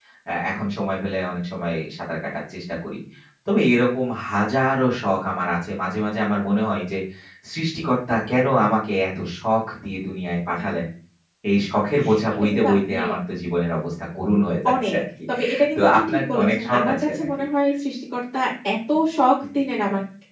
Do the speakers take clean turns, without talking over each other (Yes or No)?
No